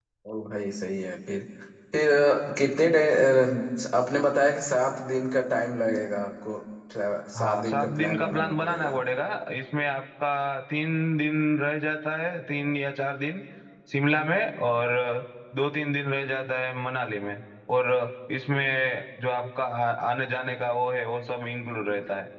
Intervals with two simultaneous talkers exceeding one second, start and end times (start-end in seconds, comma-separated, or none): 7.4-9.0